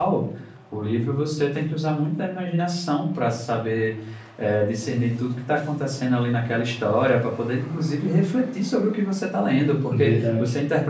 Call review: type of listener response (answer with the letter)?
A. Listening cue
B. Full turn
A